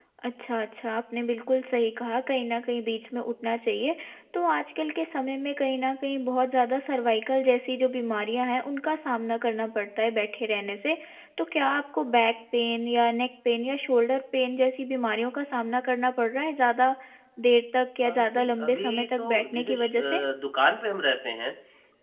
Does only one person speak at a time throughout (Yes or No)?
No